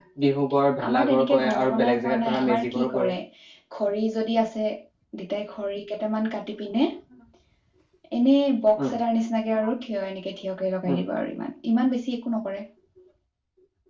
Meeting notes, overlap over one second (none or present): present